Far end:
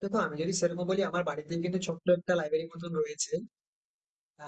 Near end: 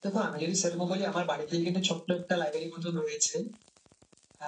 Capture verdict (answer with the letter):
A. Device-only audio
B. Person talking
A